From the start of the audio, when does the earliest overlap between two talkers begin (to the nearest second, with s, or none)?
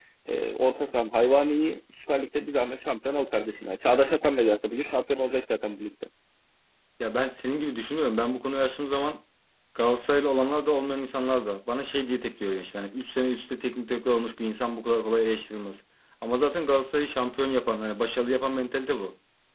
none